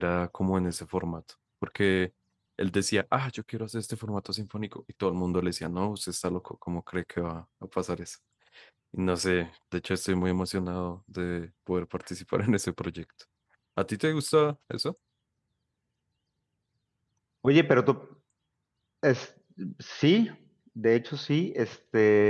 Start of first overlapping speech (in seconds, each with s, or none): none